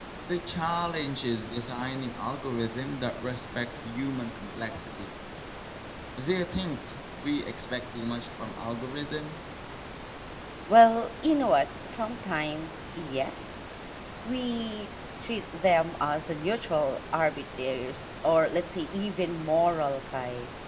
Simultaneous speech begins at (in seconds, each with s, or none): none